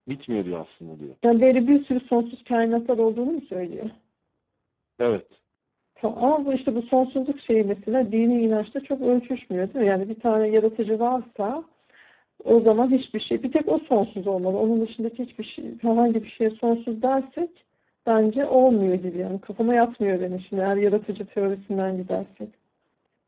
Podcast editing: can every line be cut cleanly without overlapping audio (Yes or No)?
Yes